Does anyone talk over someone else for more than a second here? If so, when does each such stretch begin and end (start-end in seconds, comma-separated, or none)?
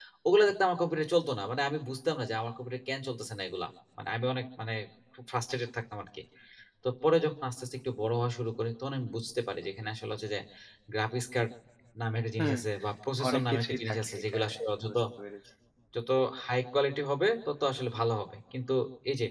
13.3-15.0